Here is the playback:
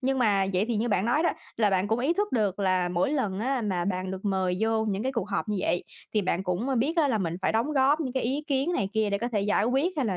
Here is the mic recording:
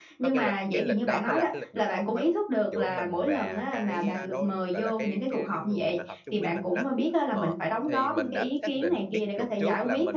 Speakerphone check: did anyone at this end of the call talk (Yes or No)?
Yes